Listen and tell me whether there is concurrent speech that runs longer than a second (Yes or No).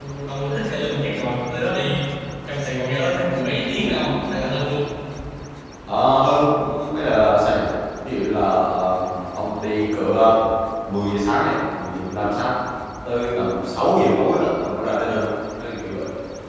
No